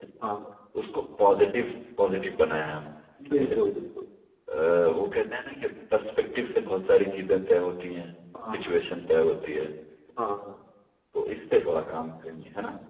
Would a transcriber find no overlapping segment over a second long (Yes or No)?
Yes